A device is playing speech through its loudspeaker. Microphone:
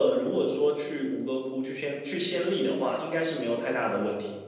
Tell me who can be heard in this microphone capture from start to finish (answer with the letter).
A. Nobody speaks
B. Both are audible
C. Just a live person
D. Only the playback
D